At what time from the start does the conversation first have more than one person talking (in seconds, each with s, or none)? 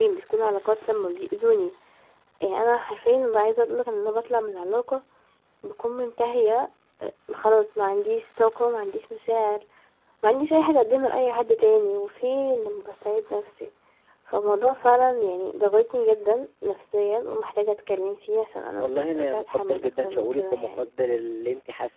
18.8 s